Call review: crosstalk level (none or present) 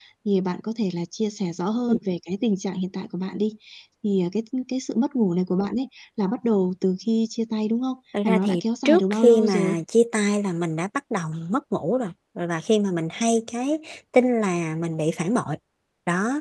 present